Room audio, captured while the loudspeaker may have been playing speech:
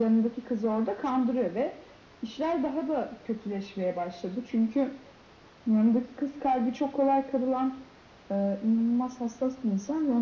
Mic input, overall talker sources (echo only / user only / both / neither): echo only